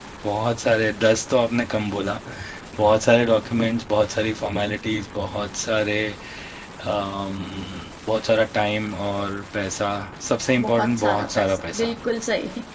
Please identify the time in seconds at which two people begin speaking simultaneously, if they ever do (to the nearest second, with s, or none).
11 s